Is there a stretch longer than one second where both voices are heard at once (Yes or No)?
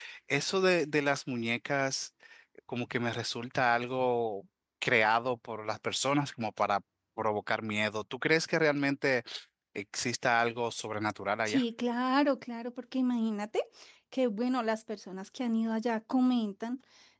No